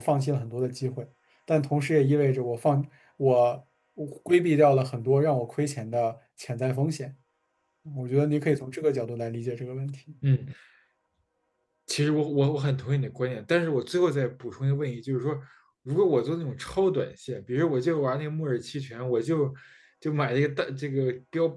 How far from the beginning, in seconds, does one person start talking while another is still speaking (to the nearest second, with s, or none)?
none